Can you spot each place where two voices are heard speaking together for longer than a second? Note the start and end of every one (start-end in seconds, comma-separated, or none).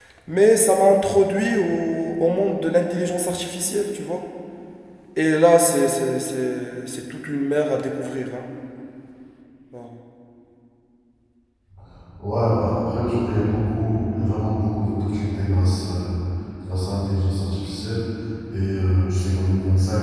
none